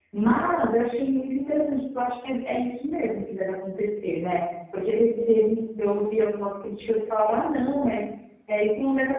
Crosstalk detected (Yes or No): No